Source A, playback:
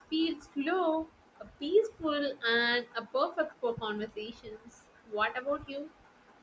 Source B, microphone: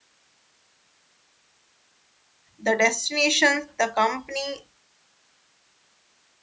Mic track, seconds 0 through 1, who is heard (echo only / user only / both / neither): neither